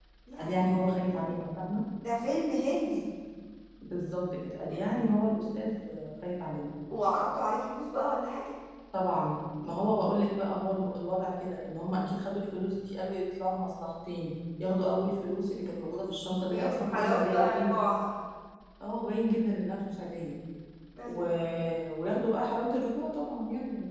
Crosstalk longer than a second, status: present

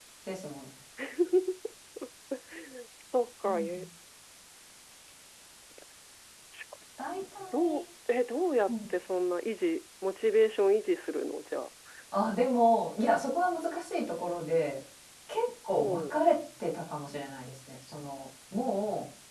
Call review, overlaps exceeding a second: none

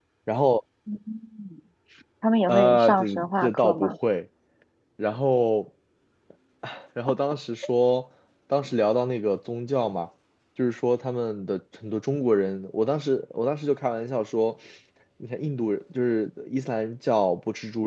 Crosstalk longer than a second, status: present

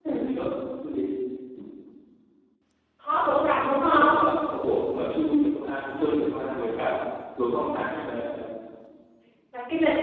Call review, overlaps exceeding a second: none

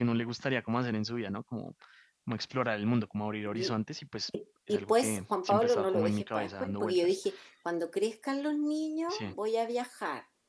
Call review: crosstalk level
present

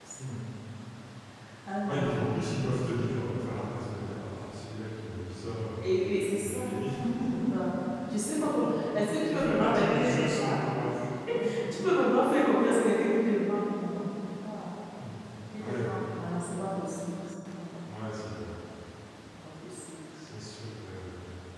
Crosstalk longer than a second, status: present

